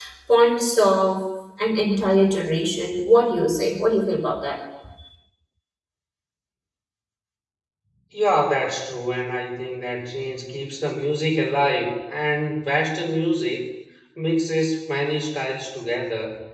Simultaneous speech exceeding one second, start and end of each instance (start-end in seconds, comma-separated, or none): none